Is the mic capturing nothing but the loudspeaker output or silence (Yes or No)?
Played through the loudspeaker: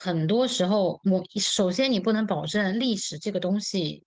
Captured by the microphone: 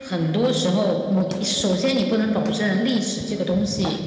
Yes